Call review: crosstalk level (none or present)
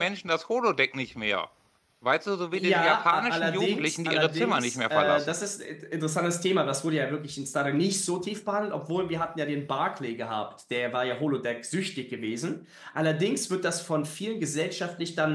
present